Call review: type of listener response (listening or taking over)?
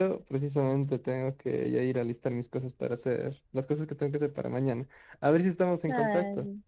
taking over